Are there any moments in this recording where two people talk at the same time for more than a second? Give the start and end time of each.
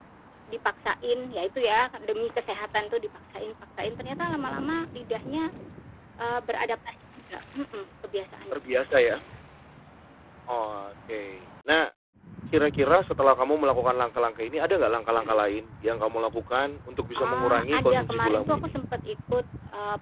17.2-18.7

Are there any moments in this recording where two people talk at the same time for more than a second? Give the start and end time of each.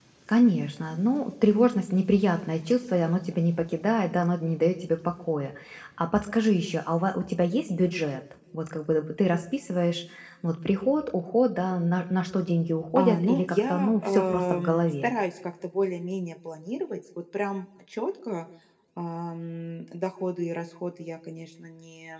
13.0-15.1

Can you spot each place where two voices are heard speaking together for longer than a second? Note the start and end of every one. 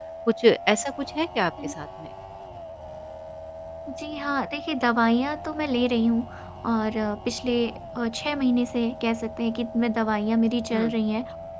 none

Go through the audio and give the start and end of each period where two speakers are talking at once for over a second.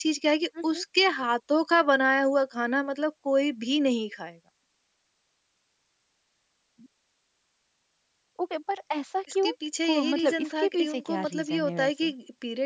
9.8-12.1

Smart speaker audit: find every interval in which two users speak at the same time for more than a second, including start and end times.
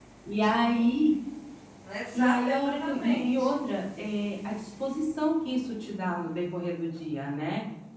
2.1-3.5

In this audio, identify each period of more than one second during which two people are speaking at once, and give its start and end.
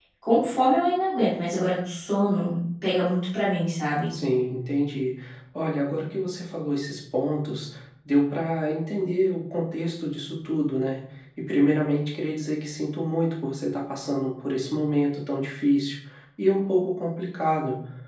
none

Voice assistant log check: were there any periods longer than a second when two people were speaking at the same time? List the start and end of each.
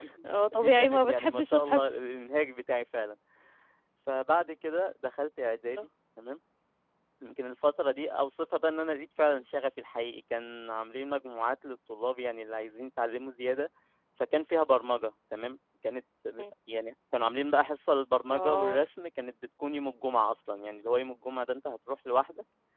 0.6-2.0

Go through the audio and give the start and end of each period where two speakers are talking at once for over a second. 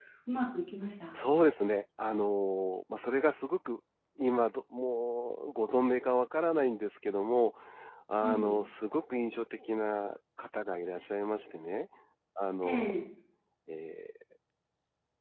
none

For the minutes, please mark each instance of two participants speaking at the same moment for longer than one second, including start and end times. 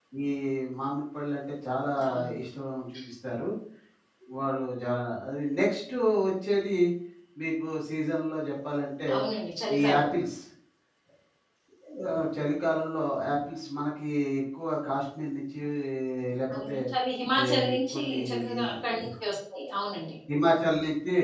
17.4-18.9

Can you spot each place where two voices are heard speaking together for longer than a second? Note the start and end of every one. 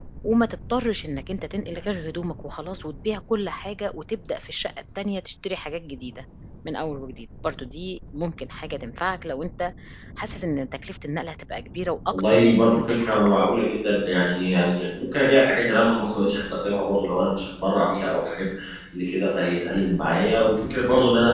12.1-13.4

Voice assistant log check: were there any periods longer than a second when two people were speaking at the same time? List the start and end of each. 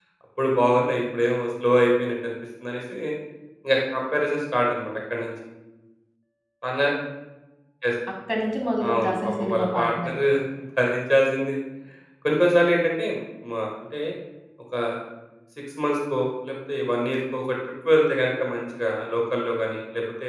8.9-10.1

